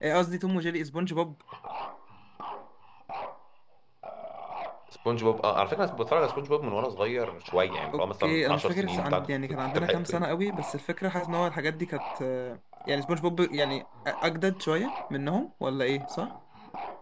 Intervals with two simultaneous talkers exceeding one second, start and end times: 7.9-10.2

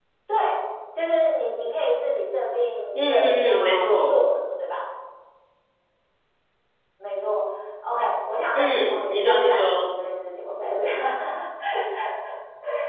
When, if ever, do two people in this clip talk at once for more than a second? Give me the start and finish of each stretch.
3.0-4.2, 8.5-9.9

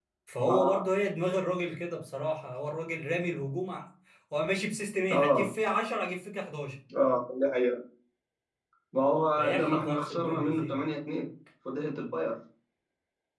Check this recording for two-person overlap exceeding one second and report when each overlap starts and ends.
9.4-10.8

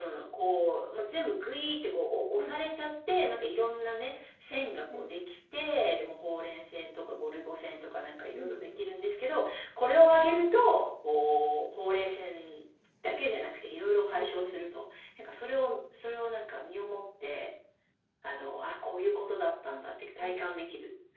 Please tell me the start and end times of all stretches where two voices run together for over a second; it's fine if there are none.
none

